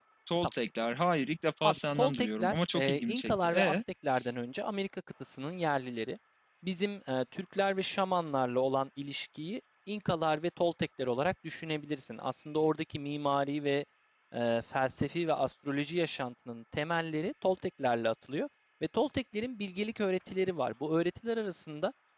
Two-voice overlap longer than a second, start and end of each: 1.6-3.8

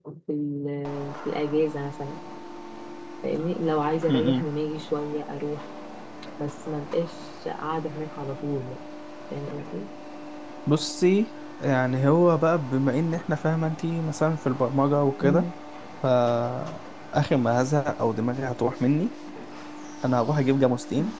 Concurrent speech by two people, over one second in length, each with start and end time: none

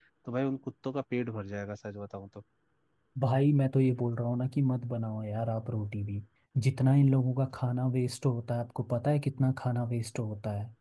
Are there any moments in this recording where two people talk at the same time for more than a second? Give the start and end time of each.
none

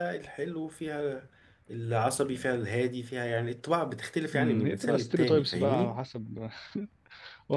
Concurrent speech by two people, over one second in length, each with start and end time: 4.3-6.0

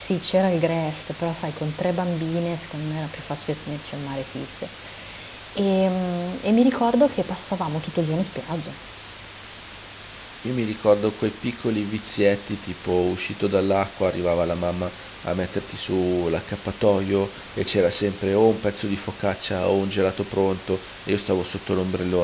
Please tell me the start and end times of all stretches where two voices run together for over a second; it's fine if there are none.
none

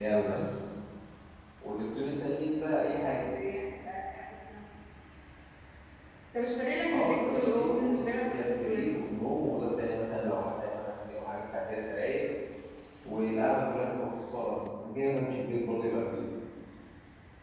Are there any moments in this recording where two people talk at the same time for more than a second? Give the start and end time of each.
6.9-9.0

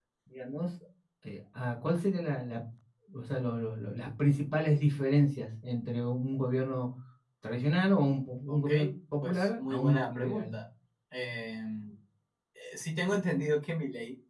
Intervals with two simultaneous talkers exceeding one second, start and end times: 9.2-10.6

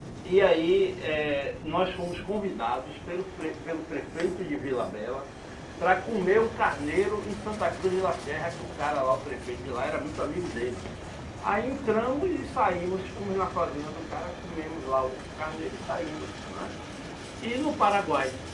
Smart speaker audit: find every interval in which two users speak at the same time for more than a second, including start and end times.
none

